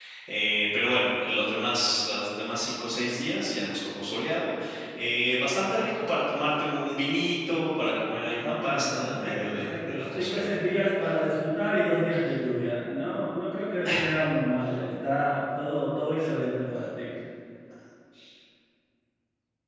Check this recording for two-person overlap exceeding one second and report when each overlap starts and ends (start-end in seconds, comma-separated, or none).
8.4-10.9